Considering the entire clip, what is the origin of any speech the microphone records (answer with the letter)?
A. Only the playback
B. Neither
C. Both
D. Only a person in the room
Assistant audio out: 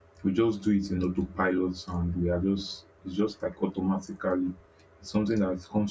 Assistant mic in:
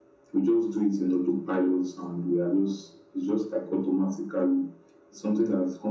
A